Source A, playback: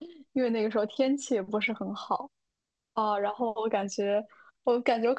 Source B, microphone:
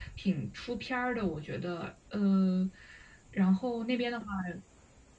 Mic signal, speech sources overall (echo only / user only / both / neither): user only